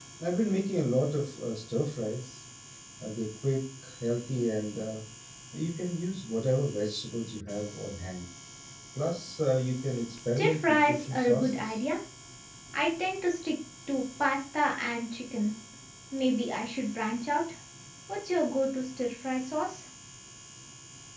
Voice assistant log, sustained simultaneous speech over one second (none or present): present